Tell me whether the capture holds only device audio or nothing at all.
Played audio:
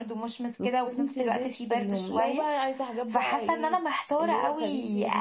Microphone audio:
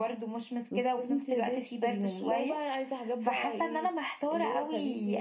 Yes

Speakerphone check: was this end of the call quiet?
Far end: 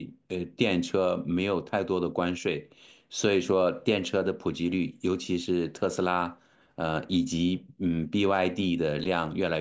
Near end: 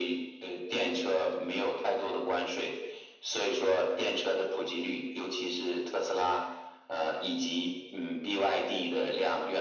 Yes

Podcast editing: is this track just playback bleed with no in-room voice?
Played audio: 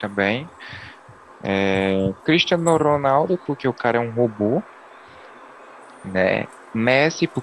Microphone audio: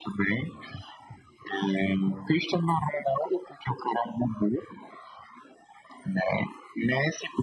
Yes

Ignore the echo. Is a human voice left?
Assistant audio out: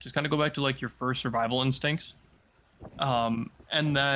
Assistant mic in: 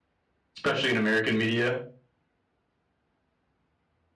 Yes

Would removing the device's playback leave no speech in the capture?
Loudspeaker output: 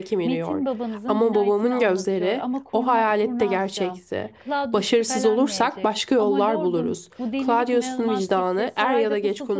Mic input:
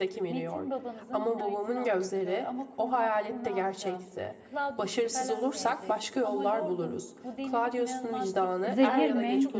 No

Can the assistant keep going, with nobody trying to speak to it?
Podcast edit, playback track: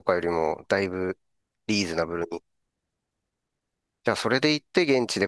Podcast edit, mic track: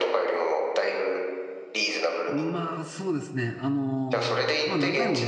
No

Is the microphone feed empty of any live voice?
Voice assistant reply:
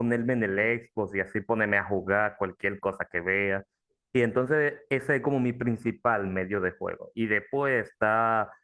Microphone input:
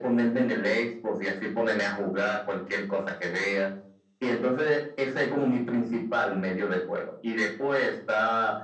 Yes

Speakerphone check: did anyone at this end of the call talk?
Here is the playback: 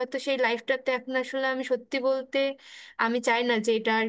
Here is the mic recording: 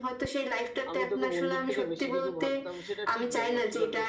Yes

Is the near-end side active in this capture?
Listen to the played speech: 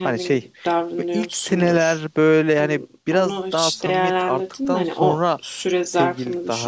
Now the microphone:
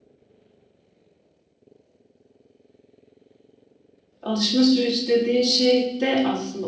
Yes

